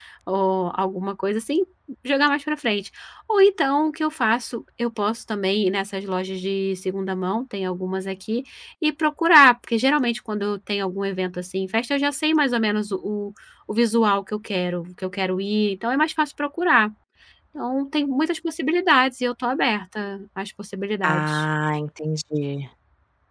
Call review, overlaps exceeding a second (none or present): none